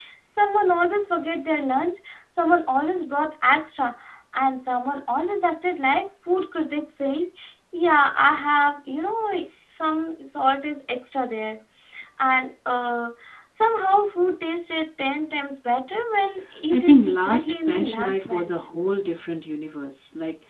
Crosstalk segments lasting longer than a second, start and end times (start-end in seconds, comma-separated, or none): 16.7-18.6